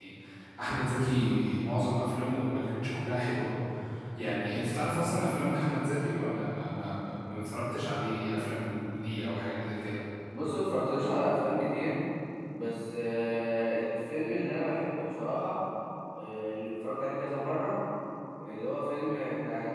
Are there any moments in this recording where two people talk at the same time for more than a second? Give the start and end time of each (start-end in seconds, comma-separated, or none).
none